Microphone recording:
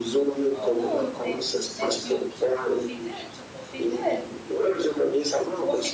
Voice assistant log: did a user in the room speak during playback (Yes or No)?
Yes